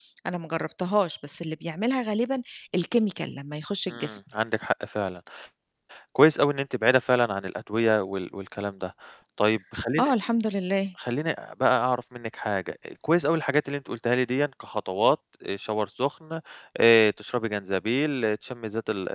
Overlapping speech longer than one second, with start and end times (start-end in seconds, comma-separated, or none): none